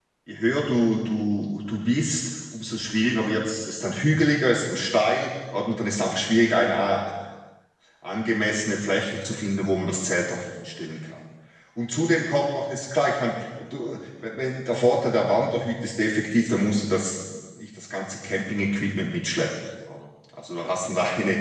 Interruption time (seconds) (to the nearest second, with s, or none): none